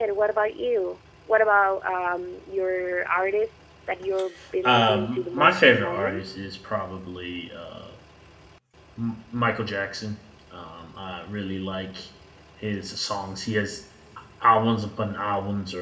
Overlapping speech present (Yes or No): Yes